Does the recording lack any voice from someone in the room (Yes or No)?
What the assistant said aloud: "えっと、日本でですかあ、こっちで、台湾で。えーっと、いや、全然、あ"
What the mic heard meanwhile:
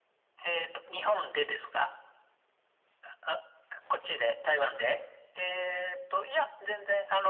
Yes